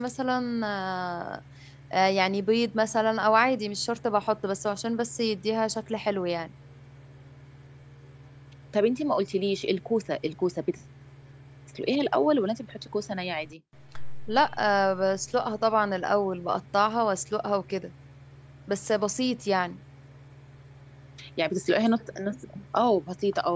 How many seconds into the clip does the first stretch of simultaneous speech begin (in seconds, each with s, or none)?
none